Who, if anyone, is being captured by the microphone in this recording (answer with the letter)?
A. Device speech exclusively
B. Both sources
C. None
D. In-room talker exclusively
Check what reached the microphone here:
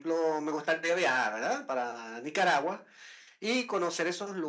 A